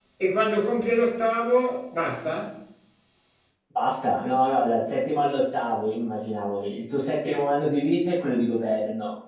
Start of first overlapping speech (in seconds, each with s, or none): none